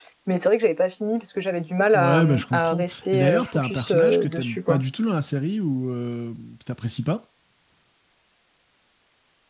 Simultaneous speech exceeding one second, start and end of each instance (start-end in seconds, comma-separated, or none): 1.9-4.8